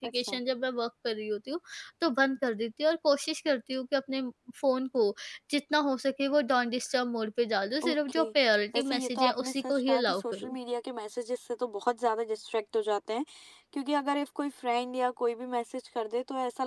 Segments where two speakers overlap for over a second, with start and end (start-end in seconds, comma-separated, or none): 8.7-10.6